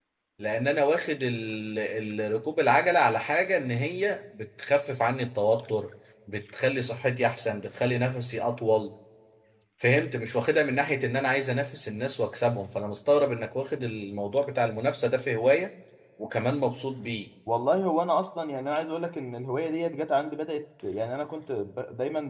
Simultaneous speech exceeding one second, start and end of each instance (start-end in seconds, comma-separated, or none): none